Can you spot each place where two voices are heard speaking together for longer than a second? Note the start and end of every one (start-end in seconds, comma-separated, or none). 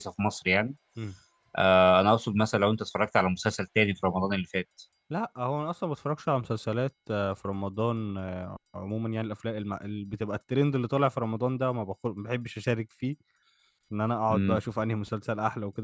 none